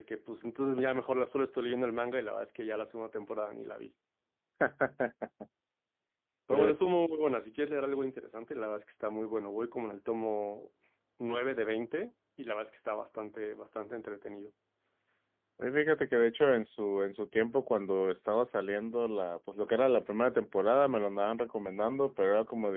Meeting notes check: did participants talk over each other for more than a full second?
No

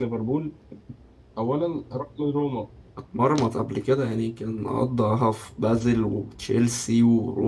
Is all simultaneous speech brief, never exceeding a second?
Yes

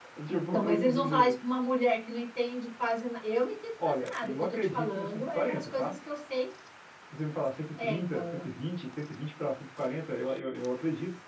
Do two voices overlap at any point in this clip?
Yes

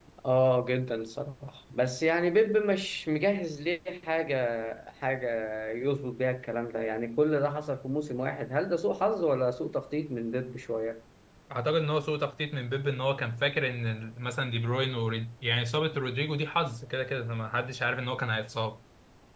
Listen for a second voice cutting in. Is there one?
No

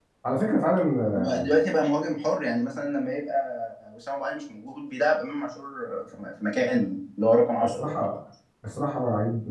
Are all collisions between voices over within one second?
Yes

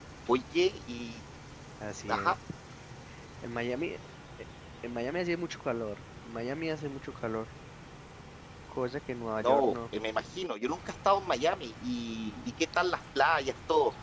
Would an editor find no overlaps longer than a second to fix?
Yes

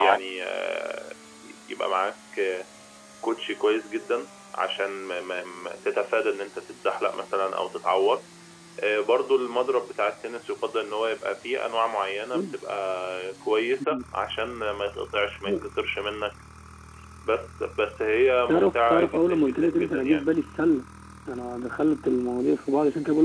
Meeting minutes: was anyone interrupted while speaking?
Yes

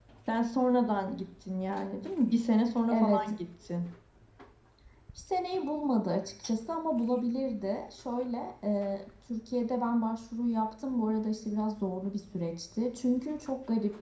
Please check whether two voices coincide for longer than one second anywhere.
No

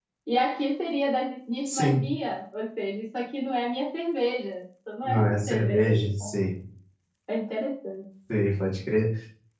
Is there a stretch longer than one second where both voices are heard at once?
Yes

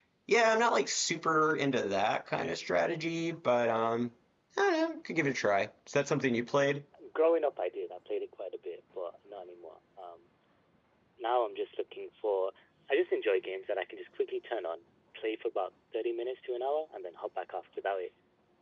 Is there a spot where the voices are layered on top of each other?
No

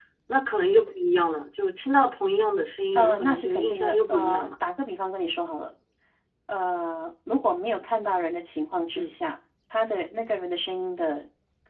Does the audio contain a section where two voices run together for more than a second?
Yes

